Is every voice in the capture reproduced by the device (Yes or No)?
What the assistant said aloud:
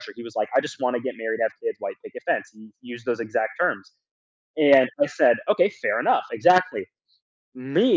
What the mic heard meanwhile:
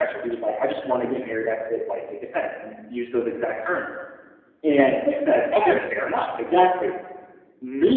No